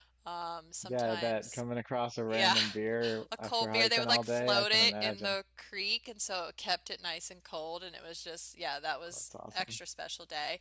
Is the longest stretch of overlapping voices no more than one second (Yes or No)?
No